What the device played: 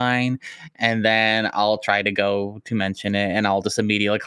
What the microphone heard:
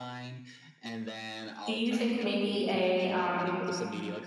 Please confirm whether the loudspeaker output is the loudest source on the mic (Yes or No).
No